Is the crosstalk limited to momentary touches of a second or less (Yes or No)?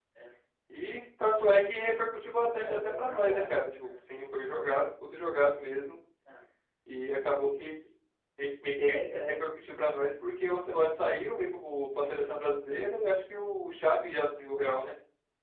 No